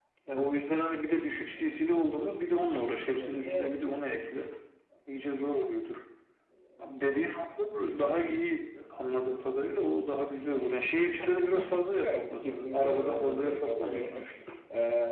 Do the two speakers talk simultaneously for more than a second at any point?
Yes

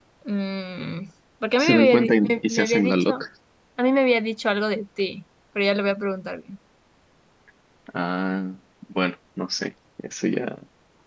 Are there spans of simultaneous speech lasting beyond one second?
Yes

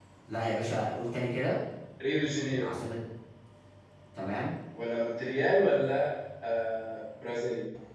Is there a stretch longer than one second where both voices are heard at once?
No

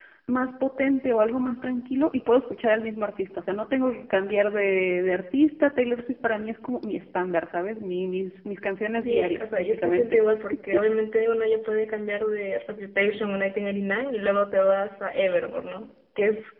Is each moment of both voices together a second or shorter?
No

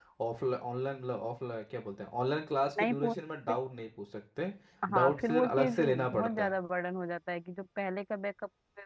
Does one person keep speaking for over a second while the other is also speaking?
Yes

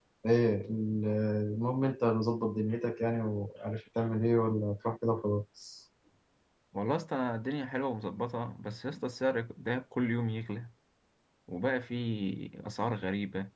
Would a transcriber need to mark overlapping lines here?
No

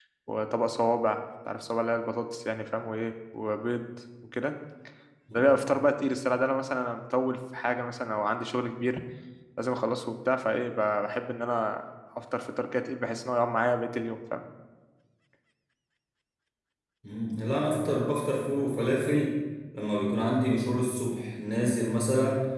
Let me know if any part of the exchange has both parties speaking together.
No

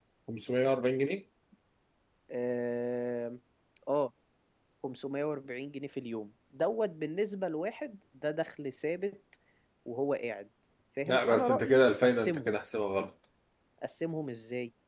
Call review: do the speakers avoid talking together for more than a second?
No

